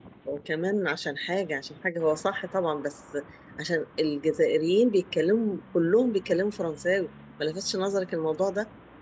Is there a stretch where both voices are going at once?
No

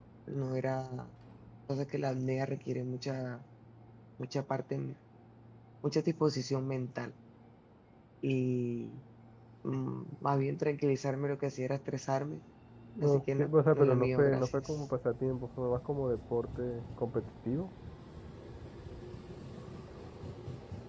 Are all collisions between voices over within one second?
No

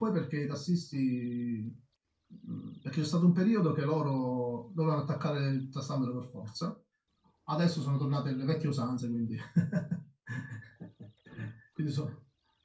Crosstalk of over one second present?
No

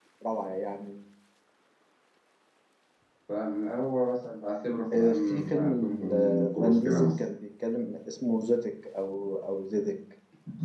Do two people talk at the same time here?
Yes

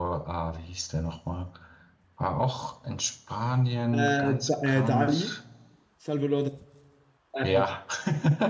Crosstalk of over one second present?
Yes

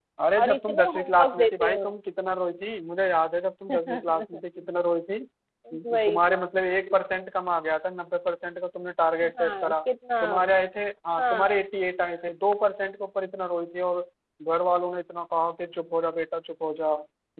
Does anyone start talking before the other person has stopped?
Yes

